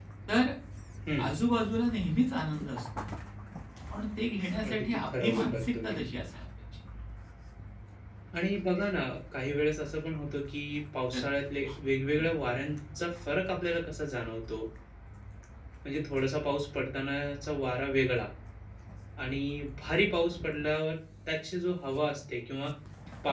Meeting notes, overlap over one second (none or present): present